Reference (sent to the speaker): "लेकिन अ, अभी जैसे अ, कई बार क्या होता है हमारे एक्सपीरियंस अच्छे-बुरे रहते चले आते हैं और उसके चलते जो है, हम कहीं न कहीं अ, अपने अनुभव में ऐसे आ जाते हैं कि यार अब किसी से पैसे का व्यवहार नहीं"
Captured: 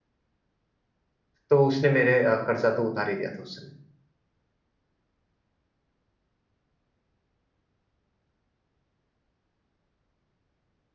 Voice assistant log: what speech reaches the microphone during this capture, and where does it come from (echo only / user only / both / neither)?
user only